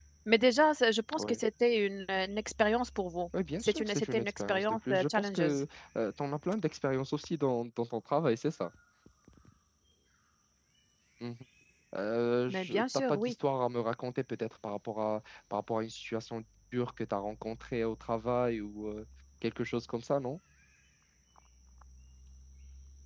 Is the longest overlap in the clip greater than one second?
Yes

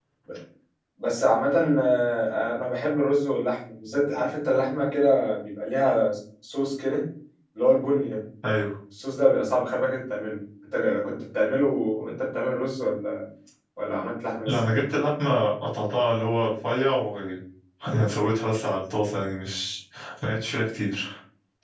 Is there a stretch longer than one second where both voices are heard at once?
No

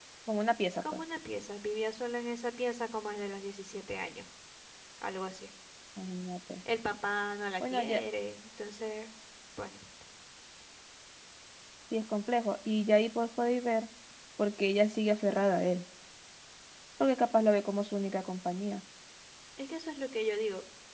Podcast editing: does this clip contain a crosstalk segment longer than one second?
No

